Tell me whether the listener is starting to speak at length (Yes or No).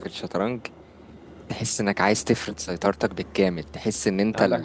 No